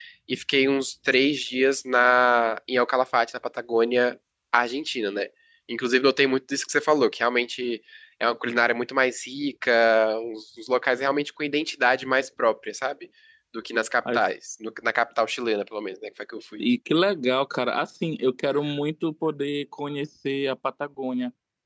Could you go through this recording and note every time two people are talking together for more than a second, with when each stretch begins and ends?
none

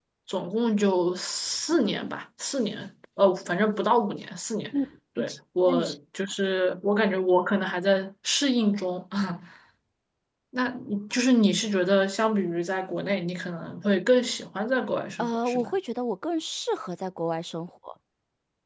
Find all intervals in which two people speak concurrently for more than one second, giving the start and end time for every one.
none

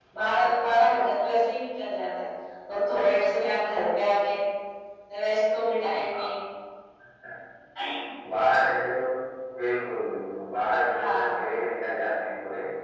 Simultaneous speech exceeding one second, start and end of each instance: none

